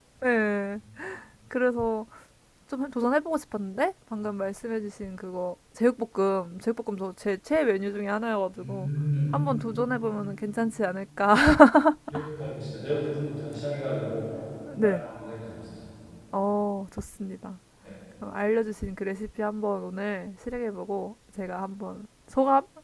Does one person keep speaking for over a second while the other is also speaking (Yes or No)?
No